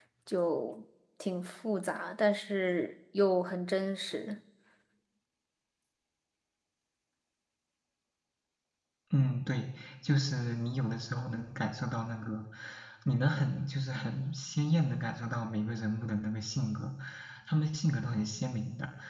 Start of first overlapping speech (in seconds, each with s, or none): none